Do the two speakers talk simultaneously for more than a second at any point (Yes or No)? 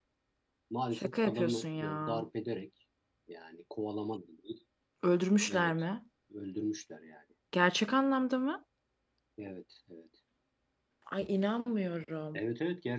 Yes